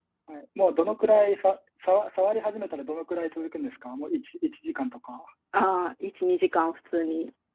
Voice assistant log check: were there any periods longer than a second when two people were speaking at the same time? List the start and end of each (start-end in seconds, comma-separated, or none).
none